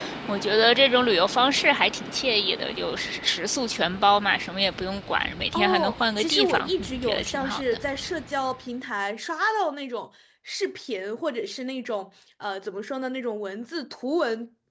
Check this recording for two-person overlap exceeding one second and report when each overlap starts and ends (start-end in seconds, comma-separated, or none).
5.5-7.8